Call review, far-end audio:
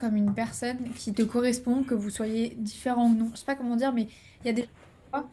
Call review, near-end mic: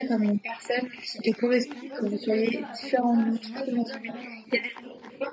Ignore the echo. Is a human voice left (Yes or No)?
Yes